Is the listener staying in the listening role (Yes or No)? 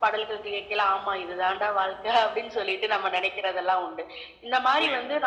Yes